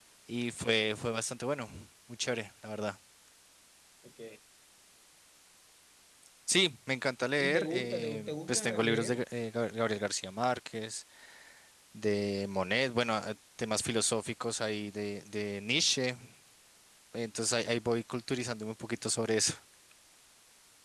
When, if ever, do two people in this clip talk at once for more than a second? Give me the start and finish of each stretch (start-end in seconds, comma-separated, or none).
7.4-9.2